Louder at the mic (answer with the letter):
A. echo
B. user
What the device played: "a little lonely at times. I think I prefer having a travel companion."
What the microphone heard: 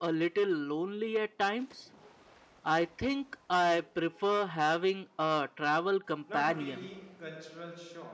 A